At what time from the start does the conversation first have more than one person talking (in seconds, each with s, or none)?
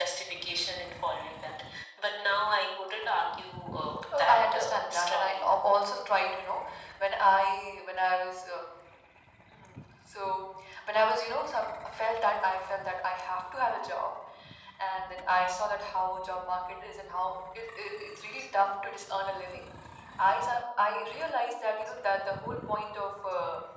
4.1 s